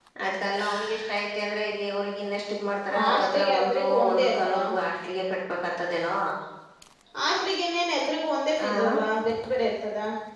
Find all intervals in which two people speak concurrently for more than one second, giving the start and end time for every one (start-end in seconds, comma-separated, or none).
3.0-4.6